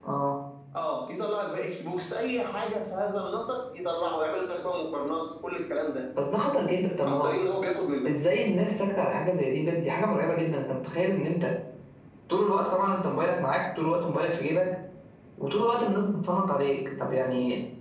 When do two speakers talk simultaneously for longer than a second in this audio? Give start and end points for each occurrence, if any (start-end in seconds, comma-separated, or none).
none